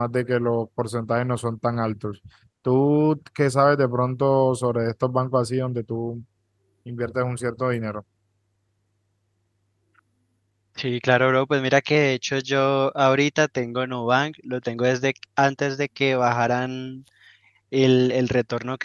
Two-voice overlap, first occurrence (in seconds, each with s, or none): none